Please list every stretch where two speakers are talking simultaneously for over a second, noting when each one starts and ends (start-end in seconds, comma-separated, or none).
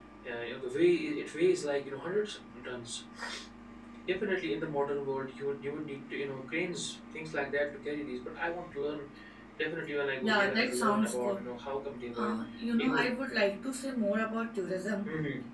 10.2-11.4